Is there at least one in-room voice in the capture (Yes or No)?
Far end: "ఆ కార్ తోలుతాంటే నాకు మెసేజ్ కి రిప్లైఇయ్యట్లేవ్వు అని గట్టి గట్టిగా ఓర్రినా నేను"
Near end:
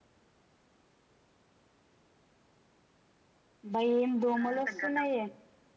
Yes